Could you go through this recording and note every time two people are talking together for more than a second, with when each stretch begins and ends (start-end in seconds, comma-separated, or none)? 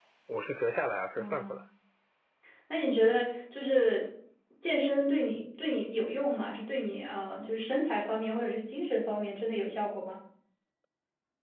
none